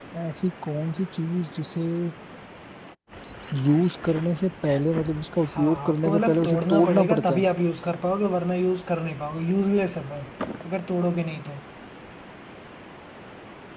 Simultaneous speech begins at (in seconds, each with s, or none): 5.4 s